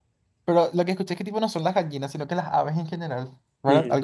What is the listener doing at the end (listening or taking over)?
taking over